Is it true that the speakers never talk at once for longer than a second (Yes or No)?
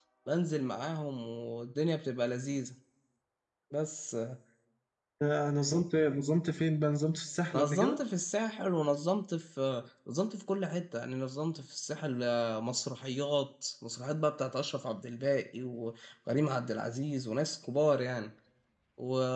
Yes